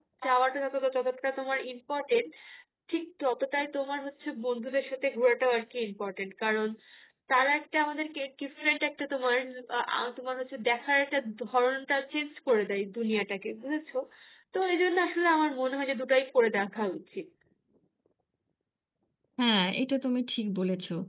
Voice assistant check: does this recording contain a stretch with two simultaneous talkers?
No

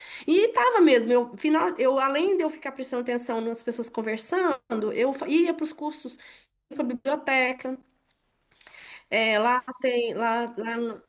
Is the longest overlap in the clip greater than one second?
No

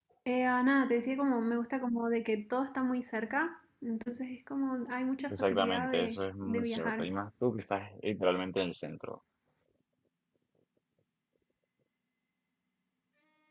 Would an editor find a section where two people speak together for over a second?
Yes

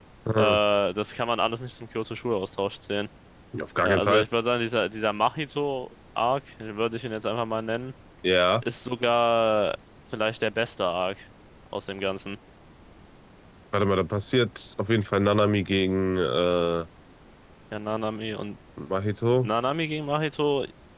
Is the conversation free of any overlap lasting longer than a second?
Yes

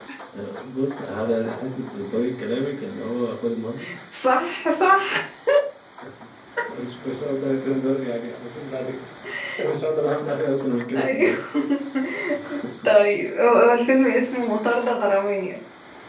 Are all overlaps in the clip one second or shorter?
Yes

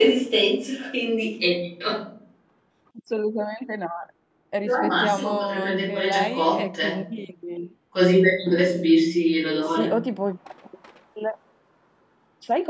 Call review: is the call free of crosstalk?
No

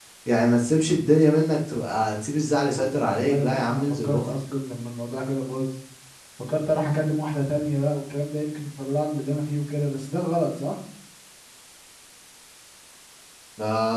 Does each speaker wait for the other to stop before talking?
No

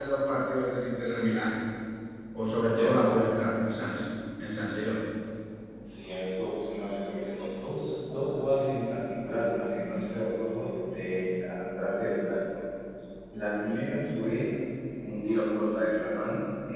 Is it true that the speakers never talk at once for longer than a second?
Yes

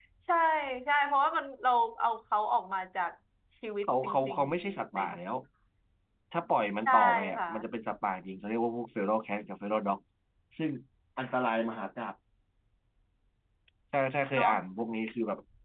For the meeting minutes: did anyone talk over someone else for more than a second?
Yes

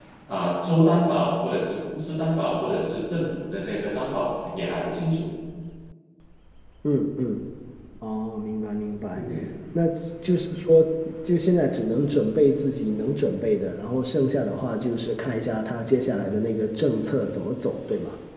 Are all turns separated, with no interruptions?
Yes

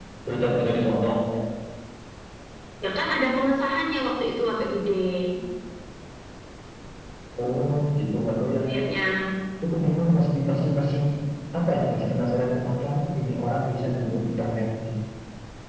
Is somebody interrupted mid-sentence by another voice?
No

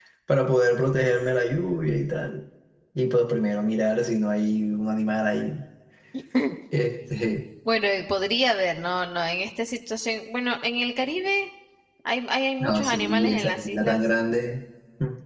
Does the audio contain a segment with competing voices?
Yes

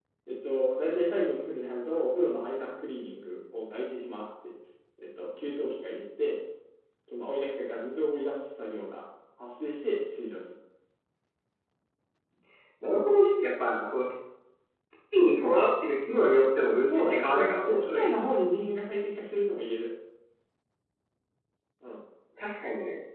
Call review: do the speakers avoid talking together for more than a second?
No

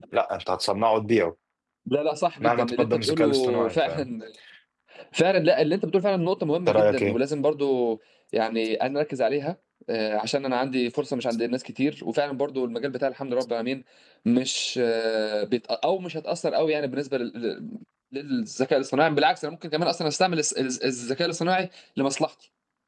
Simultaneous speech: Yes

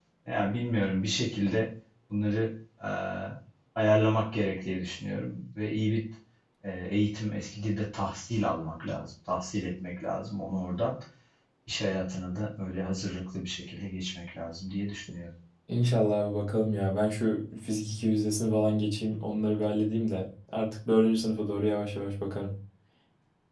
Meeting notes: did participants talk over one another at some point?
No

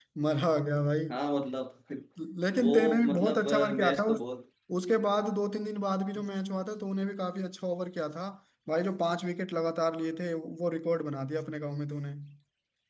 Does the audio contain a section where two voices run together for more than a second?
Yes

